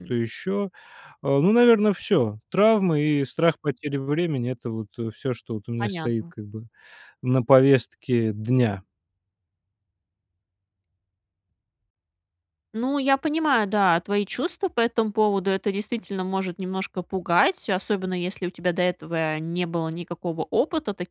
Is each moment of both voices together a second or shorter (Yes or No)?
Yes